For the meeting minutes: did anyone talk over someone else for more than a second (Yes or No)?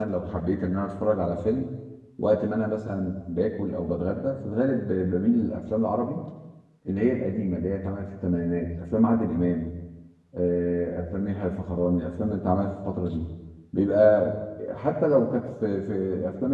No